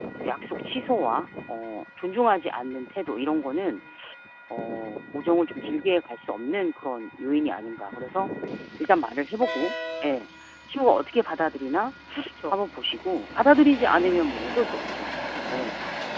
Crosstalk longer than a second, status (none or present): none